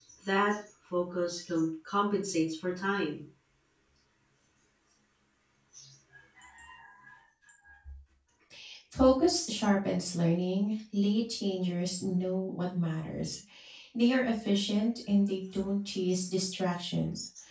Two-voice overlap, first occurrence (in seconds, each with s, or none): none